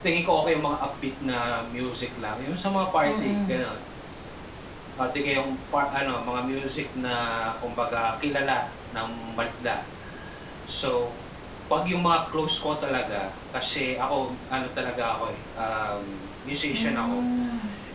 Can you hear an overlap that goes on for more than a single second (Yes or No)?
No